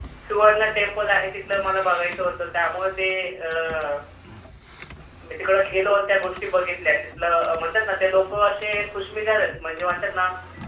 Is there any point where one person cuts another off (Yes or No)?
No